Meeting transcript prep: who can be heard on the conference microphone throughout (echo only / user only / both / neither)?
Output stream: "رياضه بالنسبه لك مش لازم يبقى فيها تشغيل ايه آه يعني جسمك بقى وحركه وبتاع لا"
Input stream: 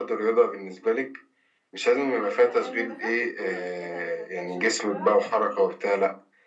both